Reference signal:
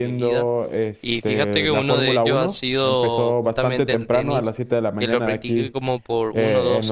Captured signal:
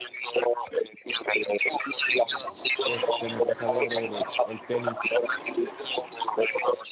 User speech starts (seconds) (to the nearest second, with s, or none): 3 s